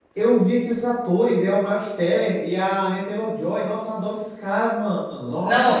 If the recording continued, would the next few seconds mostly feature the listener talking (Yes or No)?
Yes